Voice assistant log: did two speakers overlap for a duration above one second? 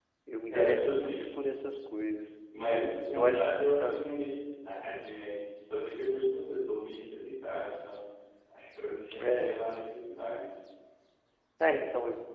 Yes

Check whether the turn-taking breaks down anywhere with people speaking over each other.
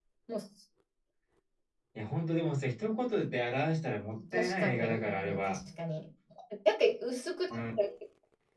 Yes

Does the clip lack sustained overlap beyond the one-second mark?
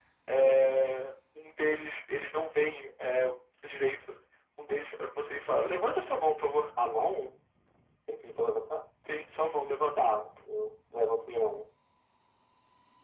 Yes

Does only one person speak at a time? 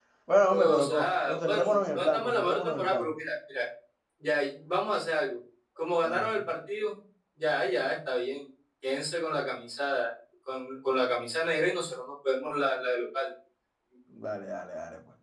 No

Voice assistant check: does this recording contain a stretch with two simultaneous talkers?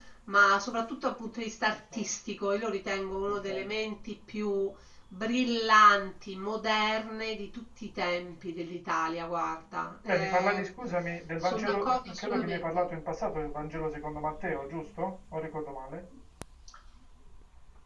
Yes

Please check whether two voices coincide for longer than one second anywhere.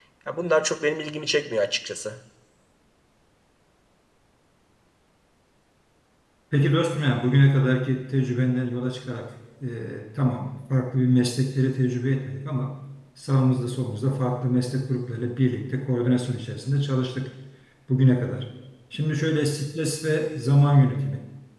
No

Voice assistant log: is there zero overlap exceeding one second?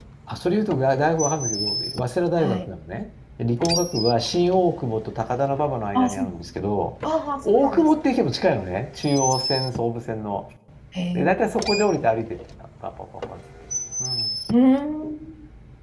Yes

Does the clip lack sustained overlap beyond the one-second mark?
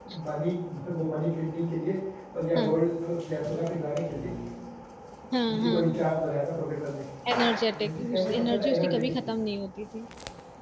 No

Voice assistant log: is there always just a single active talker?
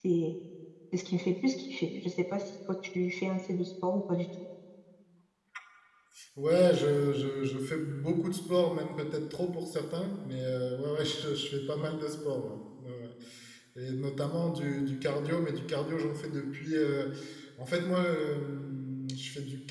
Yes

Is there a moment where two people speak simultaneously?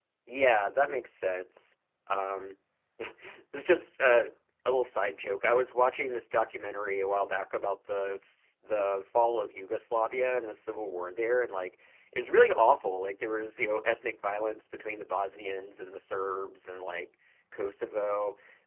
No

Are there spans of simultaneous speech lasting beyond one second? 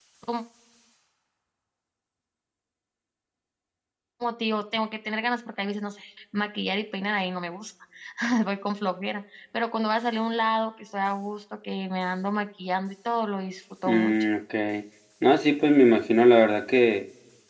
No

